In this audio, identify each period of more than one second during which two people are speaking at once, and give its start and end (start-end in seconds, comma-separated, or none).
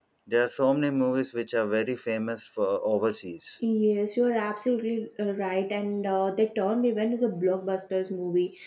none